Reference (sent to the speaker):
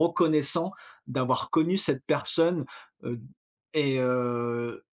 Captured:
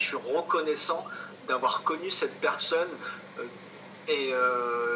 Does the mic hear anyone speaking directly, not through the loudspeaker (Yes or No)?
No